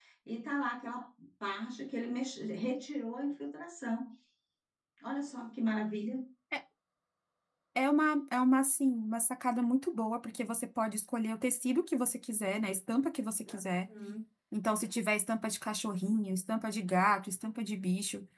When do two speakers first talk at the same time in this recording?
none

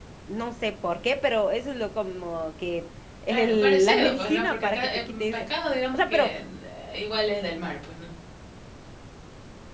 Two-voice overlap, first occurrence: 3.3 s

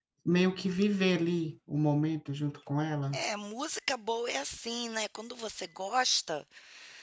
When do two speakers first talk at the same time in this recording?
none

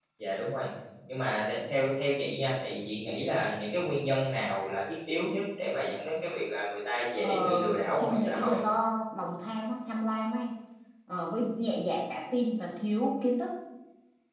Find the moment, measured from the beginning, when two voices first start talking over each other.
7.2 s

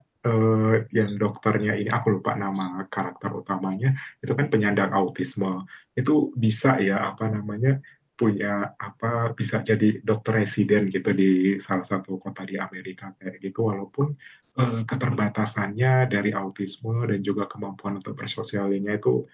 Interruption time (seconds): none

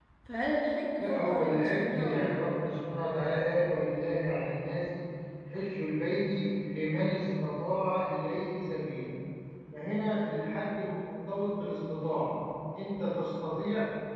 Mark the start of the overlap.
1.0 s

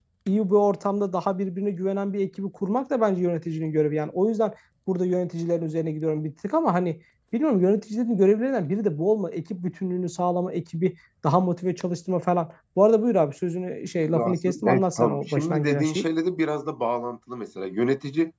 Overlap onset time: 14.1 s

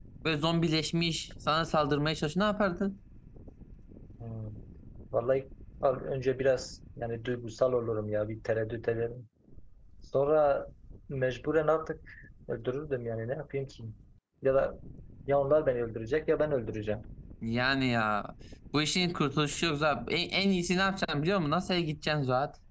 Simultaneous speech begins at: none

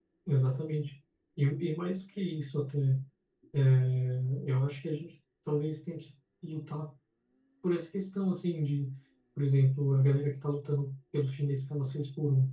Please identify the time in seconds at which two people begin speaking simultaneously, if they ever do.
none

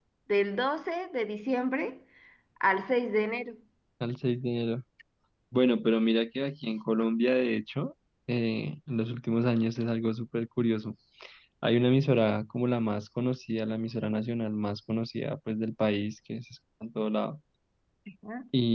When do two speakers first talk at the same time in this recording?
none

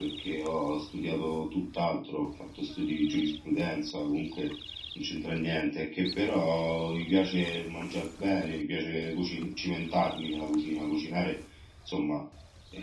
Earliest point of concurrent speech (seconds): none

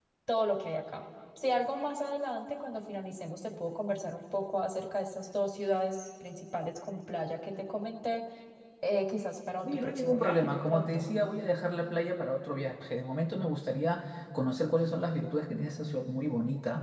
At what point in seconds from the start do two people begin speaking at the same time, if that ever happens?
9.7 s

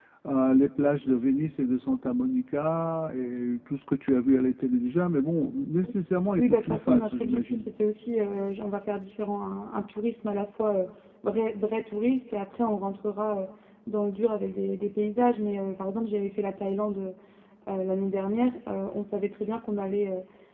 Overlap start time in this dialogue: 6.4 s

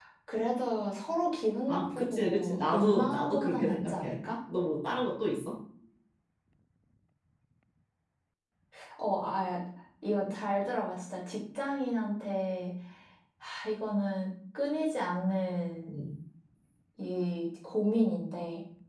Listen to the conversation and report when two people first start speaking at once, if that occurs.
1.7 s

